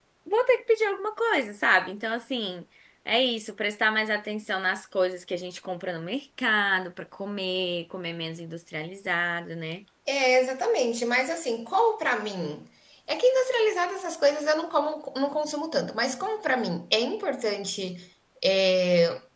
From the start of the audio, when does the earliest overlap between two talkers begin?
none

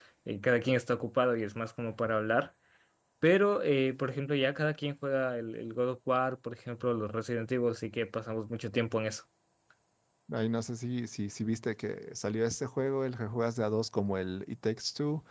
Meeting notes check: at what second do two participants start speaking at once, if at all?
none

